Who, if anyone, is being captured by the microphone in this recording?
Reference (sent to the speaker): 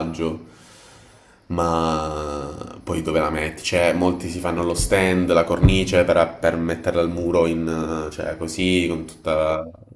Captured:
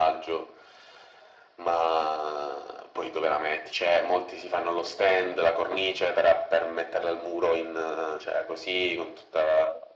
echo only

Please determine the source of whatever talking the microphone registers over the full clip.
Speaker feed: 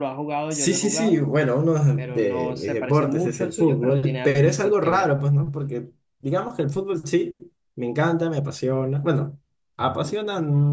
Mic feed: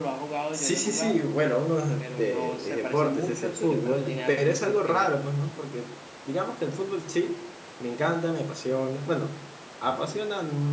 echo only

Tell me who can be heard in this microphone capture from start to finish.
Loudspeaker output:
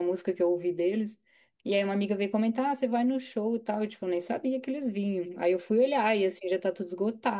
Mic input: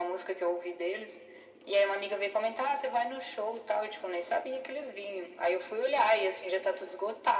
echo only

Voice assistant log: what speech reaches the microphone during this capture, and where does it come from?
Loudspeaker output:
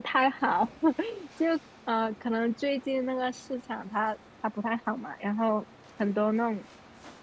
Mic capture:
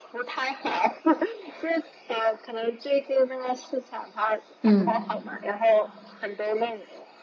both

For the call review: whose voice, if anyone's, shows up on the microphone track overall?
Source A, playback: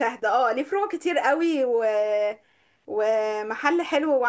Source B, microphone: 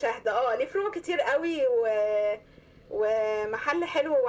echo only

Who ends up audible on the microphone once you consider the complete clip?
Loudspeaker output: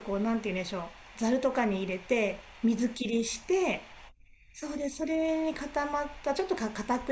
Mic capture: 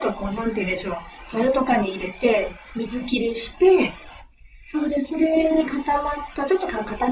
echo only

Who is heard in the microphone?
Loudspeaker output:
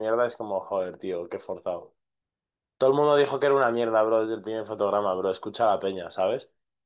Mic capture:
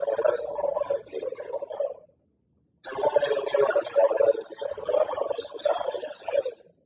echo only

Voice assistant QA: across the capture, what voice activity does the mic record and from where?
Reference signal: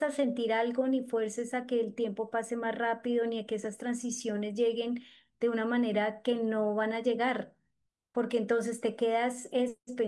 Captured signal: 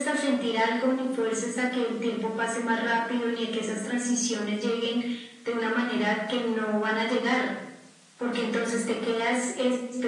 echo only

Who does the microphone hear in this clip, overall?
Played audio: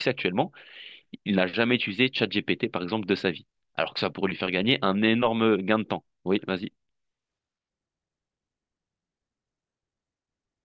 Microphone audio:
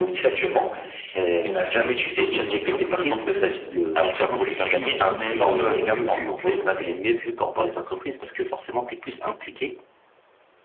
both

